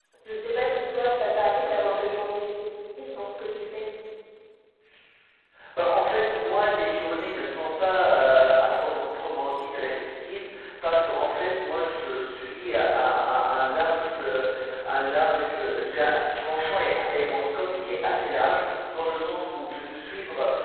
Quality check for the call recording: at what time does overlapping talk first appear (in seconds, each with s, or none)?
0.7 s